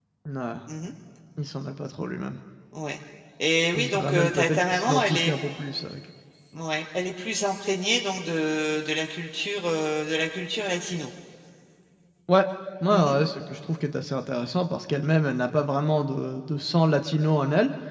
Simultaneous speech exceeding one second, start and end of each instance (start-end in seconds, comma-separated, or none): 3.8-5.3